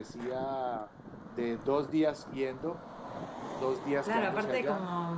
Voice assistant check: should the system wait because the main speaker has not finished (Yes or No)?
No